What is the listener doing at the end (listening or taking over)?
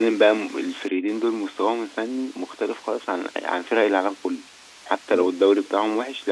listening